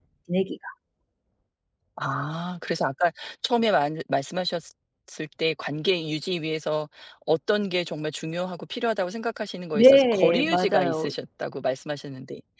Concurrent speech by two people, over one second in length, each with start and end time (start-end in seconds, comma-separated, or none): 9.7-11.1